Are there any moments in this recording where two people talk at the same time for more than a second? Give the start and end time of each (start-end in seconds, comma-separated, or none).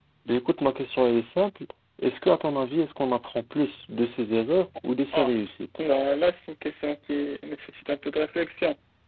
none